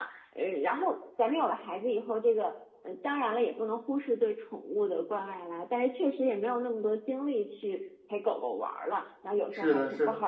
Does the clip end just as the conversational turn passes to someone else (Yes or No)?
Yes